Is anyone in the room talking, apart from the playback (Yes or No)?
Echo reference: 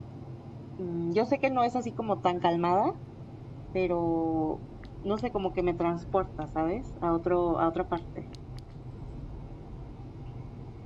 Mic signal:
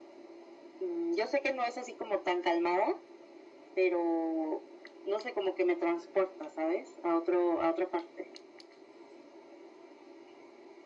No